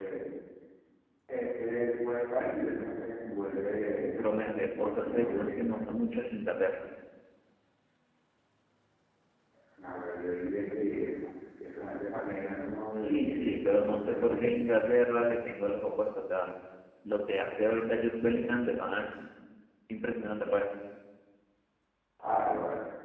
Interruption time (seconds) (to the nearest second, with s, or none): 4 s